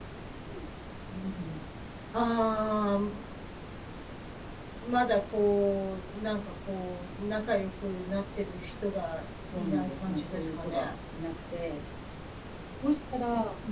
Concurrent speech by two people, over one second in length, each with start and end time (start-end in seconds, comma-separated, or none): 9.5-10.9